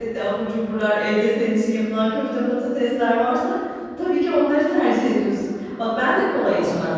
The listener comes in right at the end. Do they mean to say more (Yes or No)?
No